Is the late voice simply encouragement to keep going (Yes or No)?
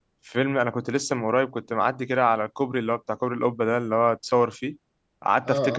Yes